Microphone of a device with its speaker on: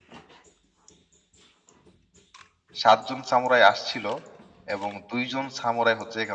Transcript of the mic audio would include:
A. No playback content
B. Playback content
A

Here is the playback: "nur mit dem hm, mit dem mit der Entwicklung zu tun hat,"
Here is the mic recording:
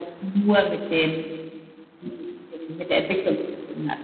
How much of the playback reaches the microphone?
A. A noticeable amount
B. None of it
A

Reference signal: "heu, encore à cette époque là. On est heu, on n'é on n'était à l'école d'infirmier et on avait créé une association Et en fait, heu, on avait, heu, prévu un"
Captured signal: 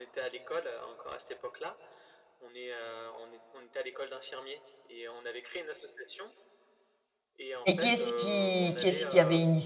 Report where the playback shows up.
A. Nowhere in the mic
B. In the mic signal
B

